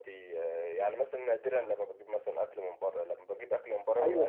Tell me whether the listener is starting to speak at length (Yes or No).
Yes